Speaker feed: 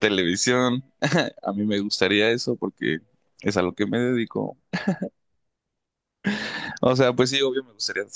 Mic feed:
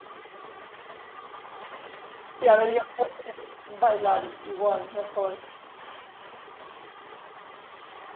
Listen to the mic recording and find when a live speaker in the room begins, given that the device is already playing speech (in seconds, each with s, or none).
2.3 s